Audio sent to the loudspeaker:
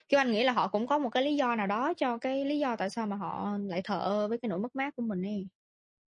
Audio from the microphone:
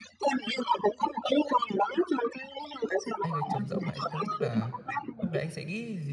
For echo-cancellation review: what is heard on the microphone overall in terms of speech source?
both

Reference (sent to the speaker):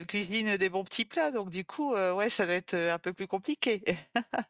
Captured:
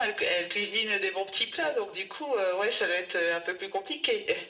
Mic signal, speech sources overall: echo only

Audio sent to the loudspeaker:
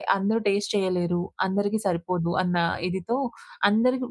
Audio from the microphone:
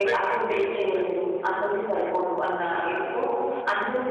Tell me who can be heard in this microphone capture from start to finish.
both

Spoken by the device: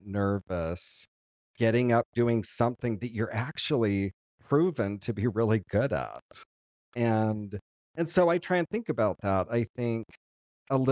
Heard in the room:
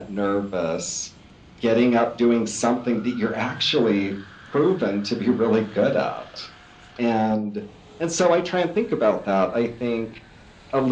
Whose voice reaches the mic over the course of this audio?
echo only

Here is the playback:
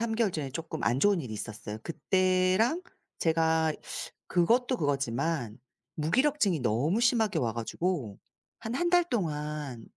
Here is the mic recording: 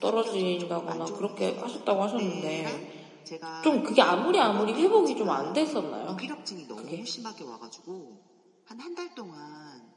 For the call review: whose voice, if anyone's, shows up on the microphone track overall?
both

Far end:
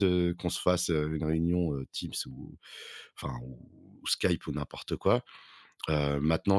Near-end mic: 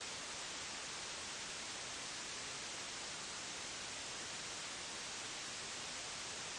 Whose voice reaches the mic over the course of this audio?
neither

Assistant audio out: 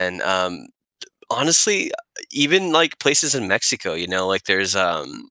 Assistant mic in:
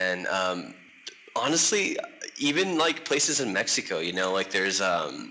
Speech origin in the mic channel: echo only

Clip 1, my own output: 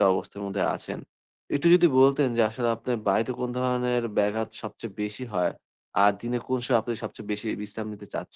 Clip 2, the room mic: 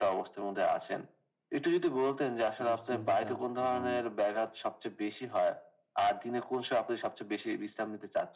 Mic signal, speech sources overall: both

